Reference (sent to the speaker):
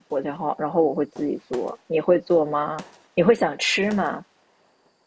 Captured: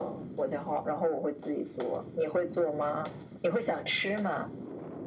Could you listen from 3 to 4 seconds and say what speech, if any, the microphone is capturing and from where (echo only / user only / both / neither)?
echo only